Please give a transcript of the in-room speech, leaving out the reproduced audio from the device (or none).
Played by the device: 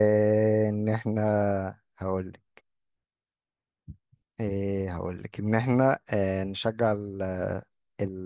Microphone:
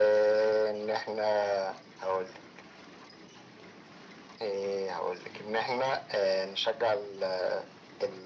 none